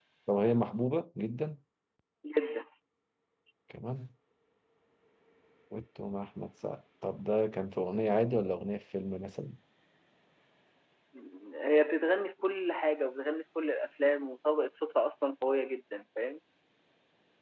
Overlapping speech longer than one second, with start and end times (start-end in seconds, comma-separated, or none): none